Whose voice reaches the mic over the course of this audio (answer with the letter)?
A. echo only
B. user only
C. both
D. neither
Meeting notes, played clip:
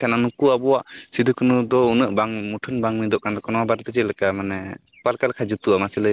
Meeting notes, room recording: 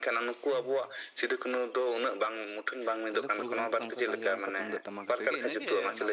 C